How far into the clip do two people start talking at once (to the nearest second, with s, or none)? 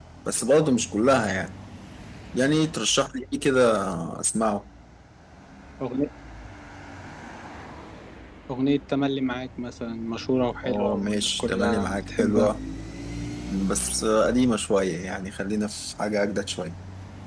11 s